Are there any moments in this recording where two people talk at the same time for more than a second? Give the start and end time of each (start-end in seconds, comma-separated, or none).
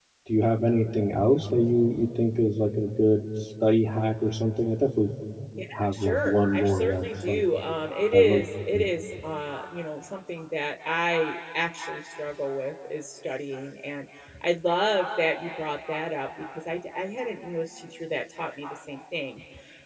5.7-7.4